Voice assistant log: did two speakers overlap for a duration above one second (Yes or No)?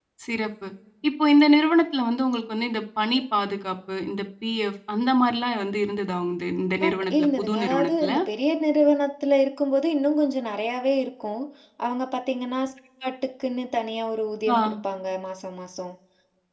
Yes